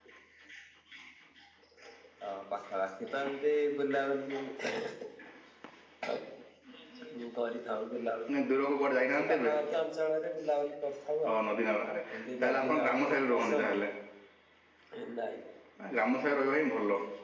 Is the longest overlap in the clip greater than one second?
Yes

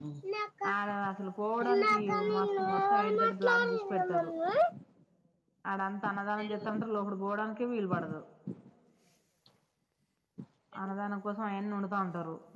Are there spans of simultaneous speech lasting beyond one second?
Yes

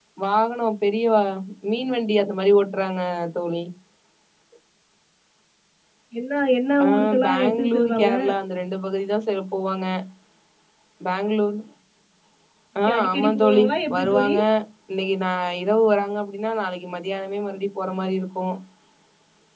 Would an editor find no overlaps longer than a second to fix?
No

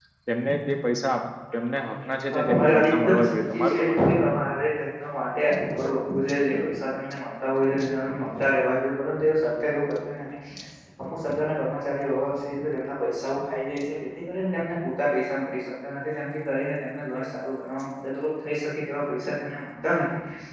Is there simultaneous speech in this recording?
Yes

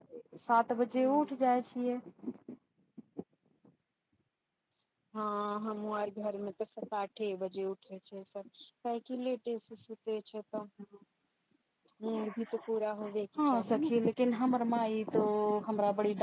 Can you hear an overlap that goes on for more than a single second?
No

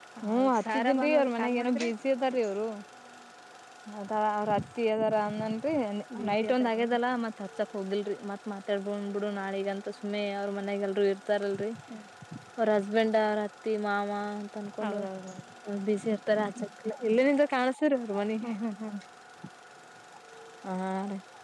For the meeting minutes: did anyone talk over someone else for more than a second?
Yes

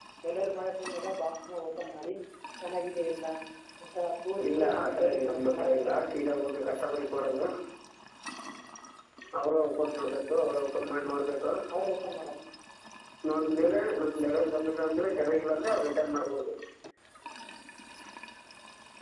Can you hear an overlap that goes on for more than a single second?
Yes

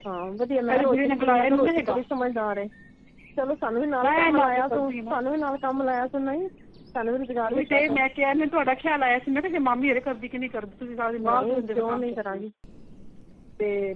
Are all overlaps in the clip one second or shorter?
No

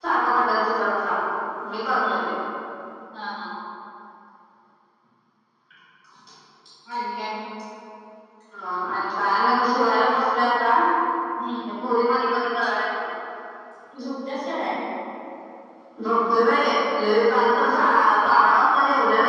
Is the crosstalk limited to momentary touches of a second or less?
Yes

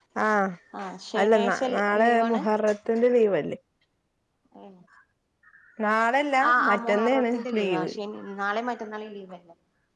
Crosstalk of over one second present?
Yes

